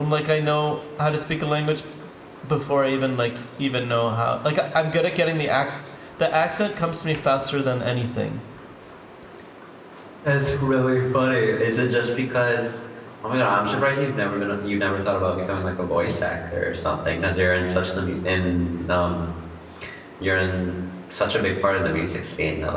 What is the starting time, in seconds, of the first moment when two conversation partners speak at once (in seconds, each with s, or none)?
none